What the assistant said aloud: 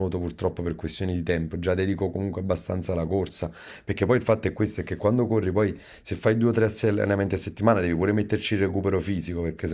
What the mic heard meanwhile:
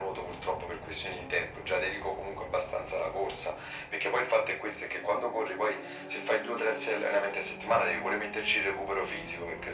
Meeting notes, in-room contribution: none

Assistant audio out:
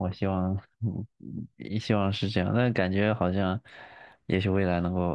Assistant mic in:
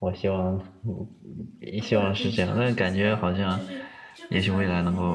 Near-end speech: present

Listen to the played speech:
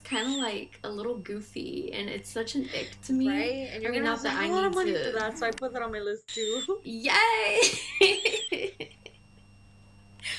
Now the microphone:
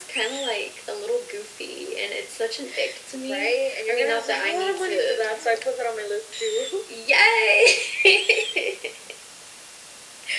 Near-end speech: none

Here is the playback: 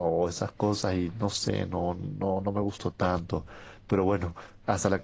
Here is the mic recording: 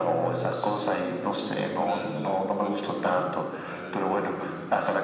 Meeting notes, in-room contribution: present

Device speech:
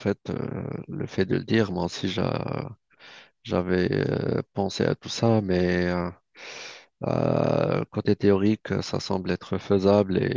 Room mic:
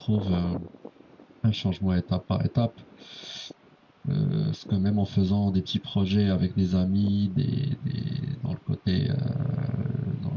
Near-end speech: present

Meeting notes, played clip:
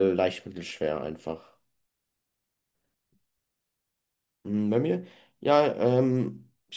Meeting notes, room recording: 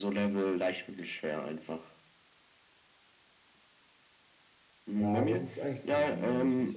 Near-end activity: present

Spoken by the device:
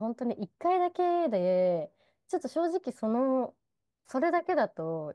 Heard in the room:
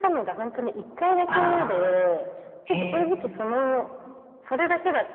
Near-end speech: present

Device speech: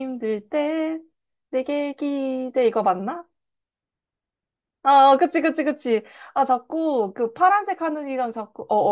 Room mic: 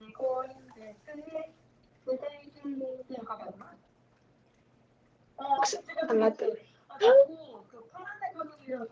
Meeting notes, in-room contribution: present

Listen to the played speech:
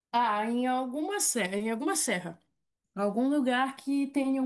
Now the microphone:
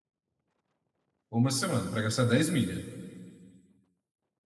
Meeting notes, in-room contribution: present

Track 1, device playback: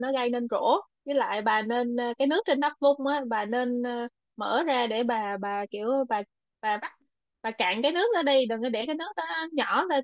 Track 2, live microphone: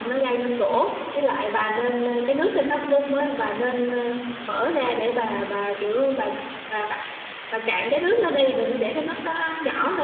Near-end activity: none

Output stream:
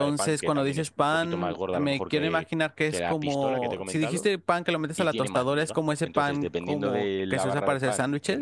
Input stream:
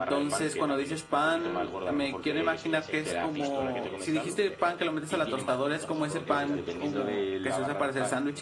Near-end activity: present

